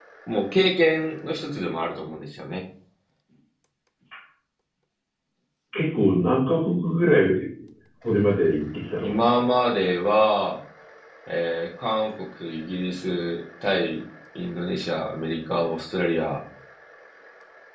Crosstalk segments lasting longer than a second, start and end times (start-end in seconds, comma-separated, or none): none